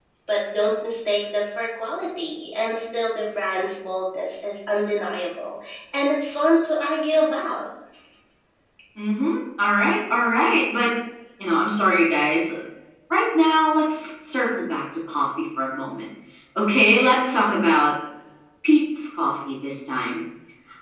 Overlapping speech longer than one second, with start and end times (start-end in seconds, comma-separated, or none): none